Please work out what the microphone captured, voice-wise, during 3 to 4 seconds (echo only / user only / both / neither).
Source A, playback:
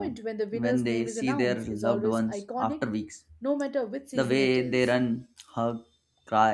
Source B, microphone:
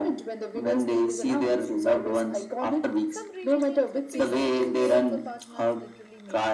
both